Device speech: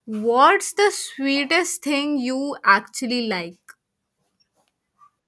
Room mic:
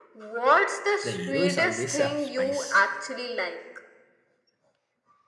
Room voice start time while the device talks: 1.0 s

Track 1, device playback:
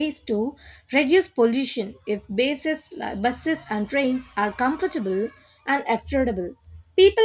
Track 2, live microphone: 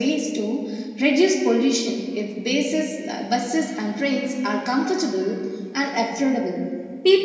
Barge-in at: none

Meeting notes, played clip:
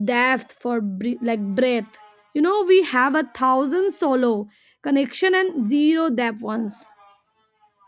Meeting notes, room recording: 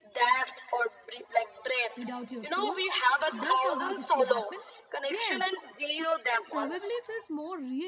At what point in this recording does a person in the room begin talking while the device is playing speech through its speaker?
1.9 s

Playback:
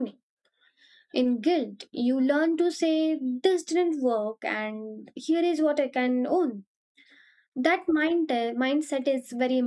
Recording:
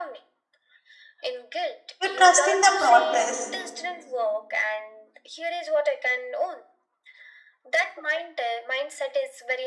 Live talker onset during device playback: 2.0 s

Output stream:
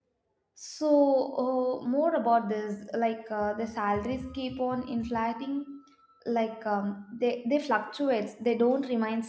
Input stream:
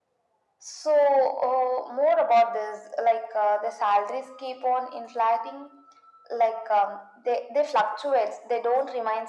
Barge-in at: none

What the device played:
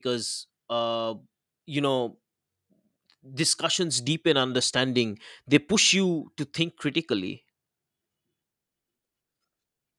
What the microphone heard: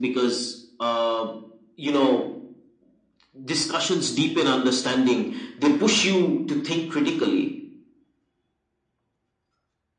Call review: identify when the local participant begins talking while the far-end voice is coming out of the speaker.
none

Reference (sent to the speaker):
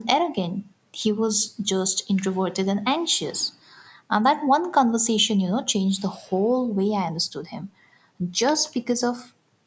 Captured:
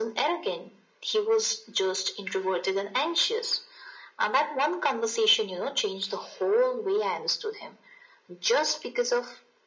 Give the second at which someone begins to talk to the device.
none

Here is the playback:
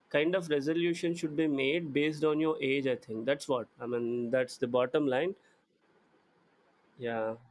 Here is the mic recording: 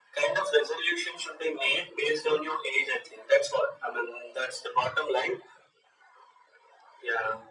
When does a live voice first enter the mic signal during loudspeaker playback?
none

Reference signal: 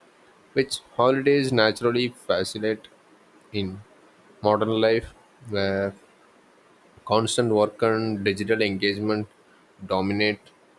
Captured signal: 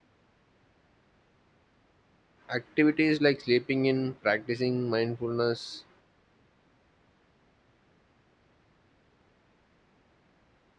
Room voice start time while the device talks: 2.5 s

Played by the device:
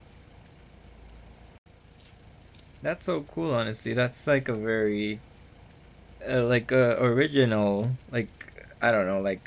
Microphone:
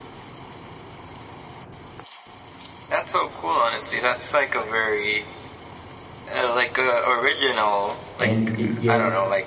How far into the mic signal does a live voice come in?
8.2 s

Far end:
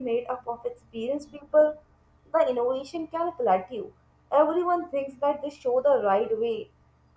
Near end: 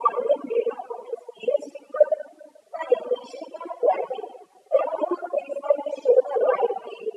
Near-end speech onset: none

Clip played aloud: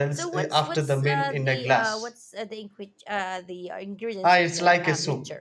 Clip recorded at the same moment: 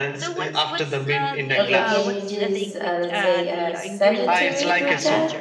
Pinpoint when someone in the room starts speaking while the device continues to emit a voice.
1.6 s

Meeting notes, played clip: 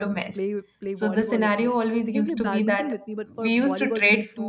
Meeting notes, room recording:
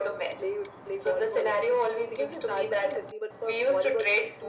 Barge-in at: none

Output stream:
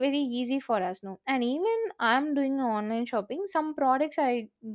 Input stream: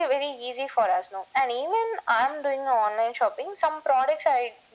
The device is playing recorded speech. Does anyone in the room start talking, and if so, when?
none

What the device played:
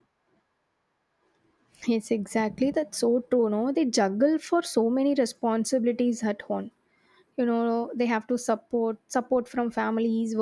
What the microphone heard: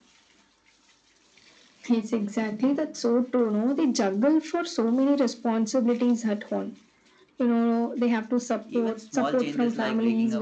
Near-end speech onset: 8.6 s

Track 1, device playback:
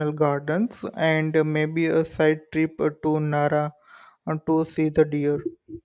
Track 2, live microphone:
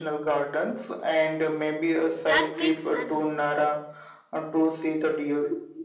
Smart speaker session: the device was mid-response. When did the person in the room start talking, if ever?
2.3 s

